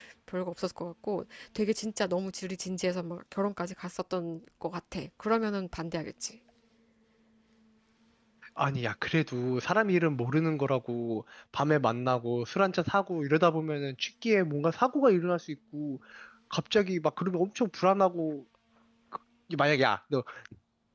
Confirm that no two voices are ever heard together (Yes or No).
Yes